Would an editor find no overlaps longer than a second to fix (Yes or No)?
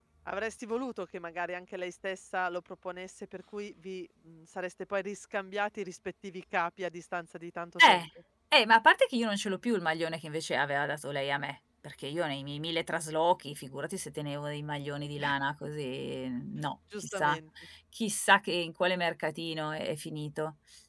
Yes